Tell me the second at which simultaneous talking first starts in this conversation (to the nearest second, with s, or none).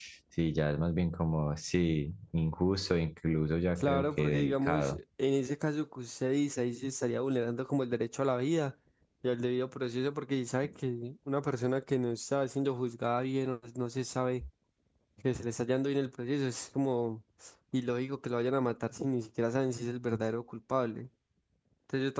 4 s